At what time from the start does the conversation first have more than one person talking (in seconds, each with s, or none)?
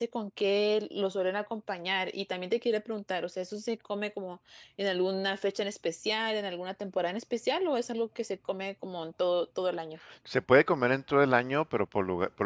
none